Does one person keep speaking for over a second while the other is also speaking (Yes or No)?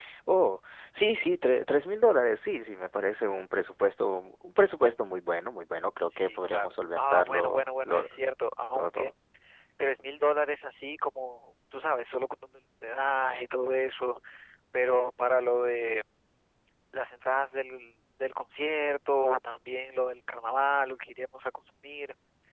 Yes